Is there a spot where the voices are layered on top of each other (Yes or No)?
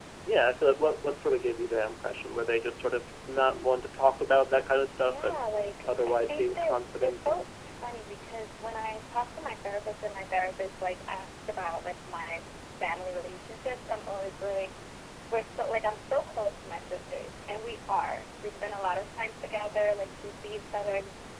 Yes